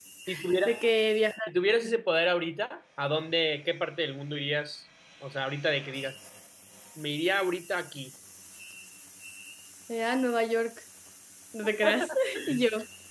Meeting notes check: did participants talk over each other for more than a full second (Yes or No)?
No